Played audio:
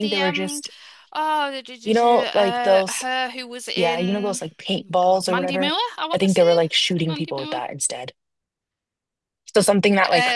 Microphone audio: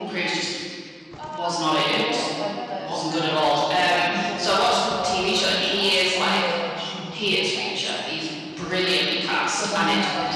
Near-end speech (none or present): present